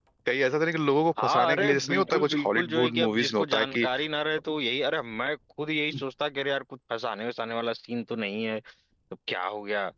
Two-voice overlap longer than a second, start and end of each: 1.2-3.9

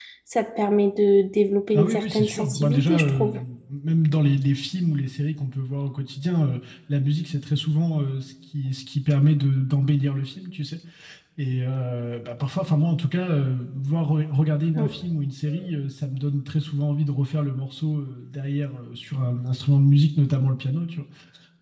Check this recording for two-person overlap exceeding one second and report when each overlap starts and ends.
1.7-3.3

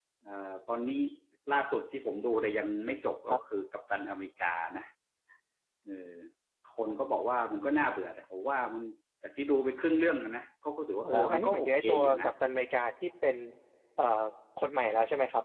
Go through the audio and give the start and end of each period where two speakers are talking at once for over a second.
11.0-12.3

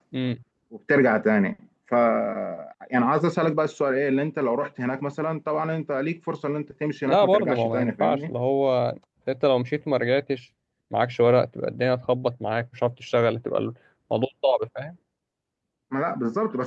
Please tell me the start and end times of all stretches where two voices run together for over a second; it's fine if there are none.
7.0-8.3

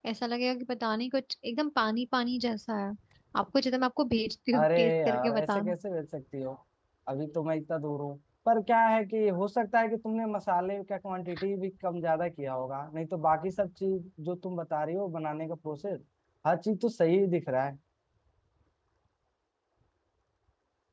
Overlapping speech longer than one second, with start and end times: 4.5-5.7

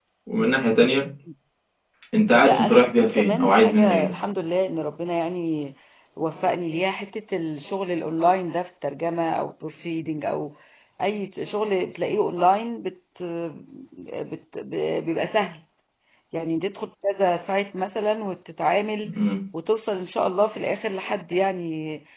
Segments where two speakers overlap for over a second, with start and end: 2.4-4.1

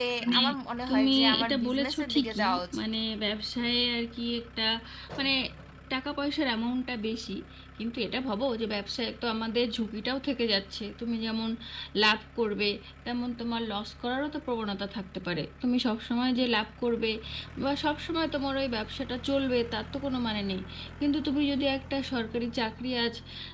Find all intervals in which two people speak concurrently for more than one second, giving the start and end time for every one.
0.9-2.8

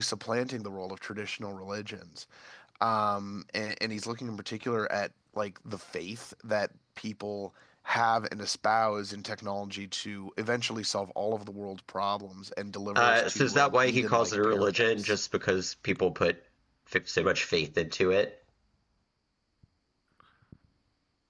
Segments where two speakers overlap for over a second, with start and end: 13.0-15.2

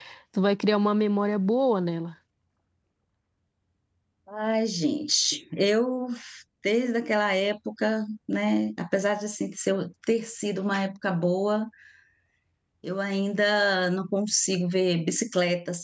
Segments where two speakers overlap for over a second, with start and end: none

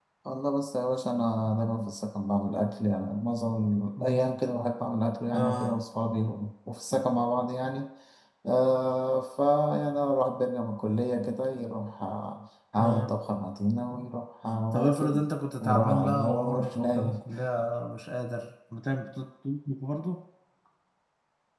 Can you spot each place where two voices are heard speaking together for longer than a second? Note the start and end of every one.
15.6-17.2

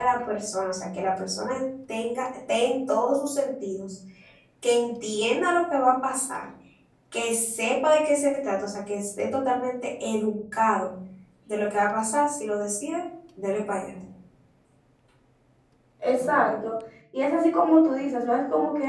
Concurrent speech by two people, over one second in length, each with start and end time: none

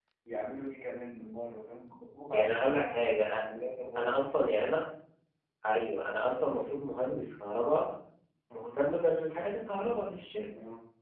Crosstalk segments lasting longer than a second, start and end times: none

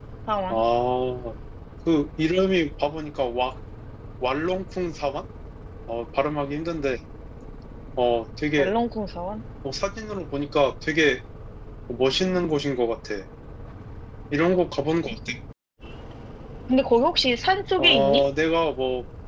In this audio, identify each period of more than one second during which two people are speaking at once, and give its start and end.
none

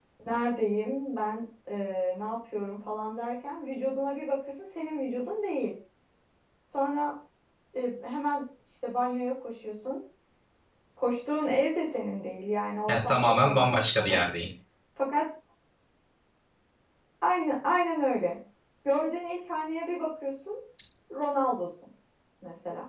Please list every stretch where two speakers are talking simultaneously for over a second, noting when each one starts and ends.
12.9-14.2

